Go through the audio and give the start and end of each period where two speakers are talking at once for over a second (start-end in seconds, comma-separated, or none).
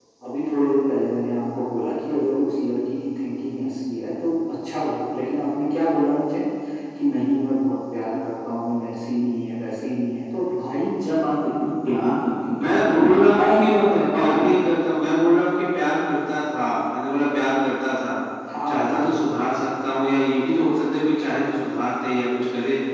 12.6-14.5